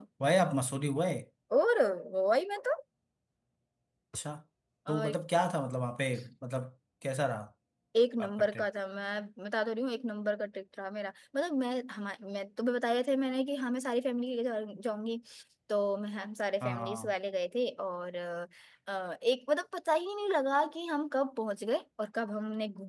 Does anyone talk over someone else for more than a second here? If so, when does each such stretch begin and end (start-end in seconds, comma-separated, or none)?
none